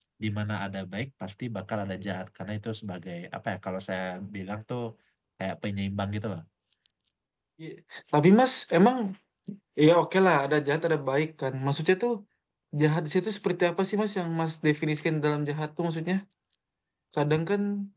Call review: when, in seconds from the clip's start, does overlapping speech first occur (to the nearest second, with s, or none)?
none